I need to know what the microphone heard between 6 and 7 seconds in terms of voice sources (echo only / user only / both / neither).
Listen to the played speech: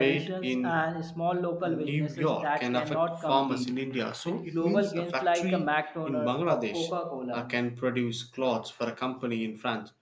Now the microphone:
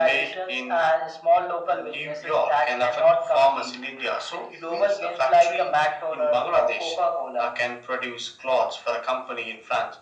echo only